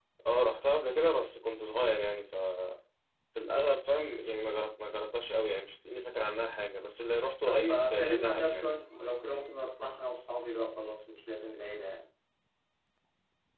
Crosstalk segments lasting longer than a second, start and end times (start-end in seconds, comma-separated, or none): 7.4-8.7